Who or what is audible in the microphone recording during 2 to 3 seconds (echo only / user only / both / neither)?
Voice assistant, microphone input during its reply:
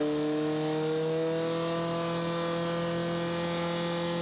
neither